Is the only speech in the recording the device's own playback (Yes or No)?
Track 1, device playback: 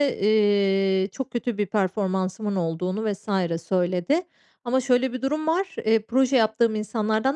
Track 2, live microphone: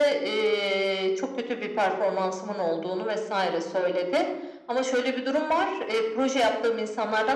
Yes